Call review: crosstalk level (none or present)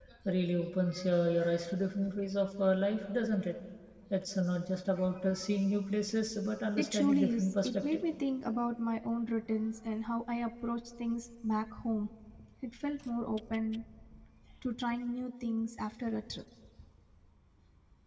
present